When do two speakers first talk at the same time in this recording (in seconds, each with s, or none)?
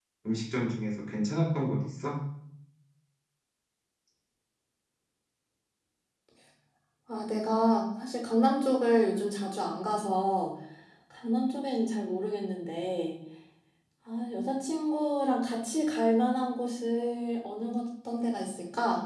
none